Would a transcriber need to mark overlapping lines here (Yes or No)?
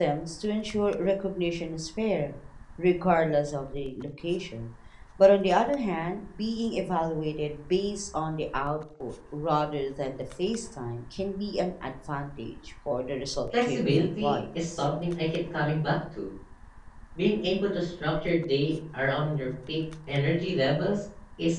Yes